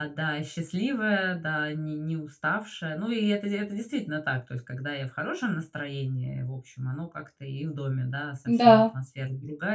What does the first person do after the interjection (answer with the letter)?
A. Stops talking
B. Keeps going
B